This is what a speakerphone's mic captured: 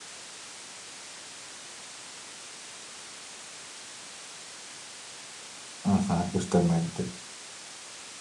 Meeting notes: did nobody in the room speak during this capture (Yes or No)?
No